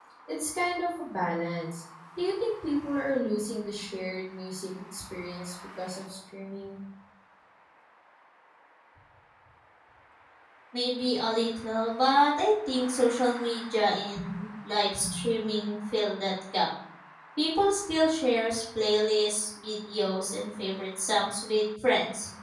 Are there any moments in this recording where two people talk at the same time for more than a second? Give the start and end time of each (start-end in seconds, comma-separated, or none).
none